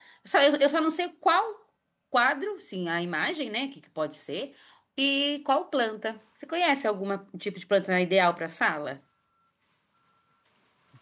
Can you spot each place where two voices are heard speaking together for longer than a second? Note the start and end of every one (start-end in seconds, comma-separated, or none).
none